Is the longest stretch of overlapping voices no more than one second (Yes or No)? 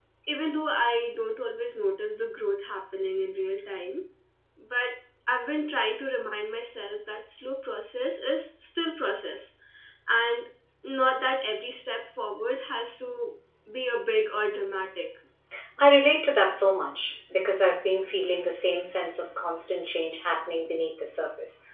Yes